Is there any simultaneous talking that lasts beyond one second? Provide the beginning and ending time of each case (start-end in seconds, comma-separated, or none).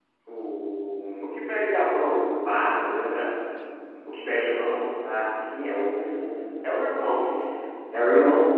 none